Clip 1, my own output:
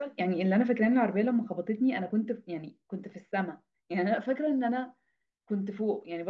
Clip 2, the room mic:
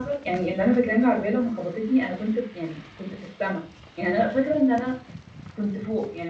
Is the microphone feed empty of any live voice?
Yes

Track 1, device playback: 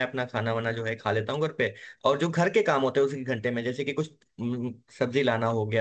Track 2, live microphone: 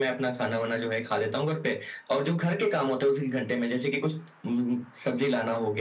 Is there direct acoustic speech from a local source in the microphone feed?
No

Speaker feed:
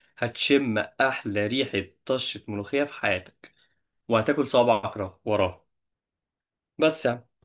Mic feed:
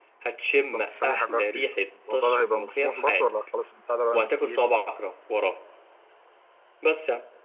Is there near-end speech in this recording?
Yes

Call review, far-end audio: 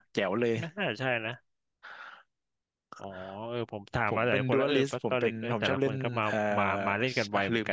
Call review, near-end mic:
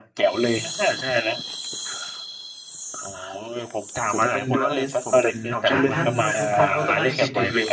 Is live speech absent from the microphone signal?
No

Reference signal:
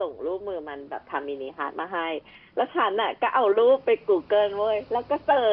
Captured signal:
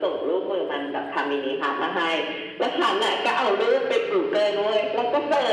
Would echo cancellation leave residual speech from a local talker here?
No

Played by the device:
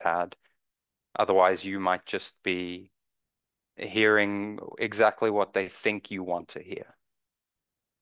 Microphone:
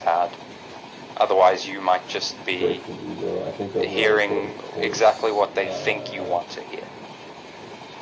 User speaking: Yes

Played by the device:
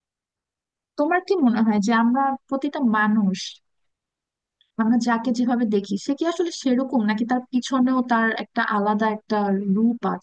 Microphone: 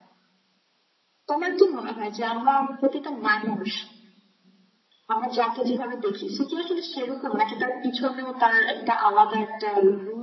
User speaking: No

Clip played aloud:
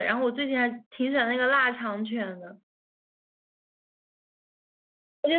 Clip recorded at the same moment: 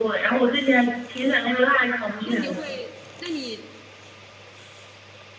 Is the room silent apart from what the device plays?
No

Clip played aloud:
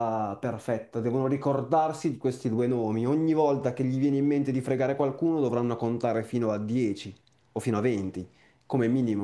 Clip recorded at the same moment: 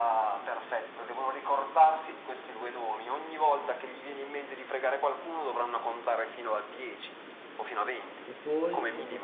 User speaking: Yes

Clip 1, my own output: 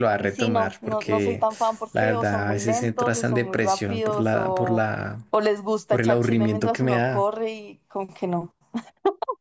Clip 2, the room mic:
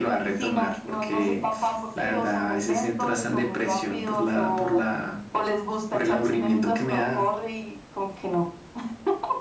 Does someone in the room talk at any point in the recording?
No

